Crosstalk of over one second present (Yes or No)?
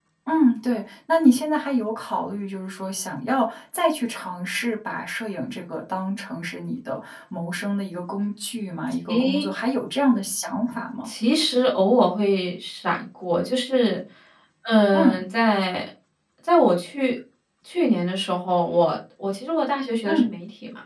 No